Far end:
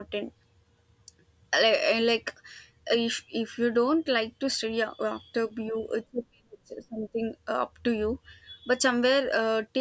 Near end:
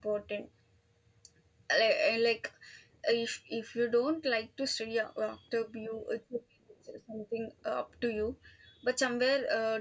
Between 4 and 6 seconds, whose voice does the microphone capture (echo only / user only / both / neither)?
echo only